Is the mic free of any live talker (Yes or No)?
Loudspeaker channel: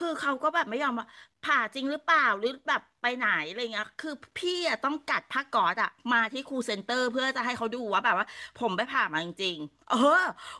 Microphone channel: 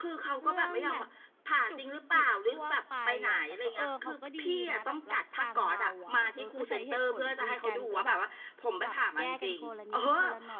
No